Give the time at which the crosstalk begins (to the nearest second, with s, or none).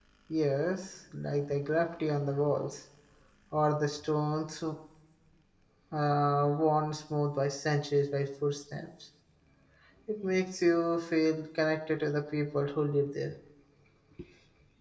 none